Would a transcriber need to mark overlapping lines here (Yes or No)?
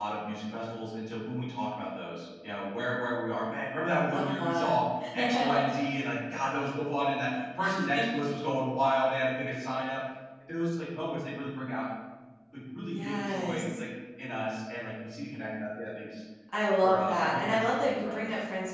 Yes